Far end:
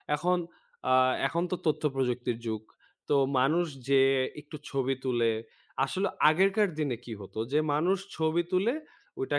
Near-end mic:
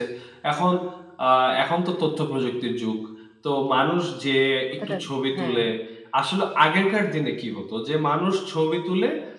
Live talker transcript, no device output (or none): কথাটা হ্যাঁ।